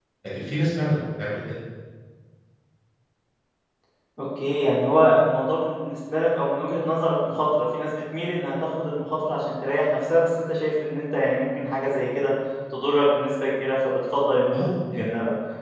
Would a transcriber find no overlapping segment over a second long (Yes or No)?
Yes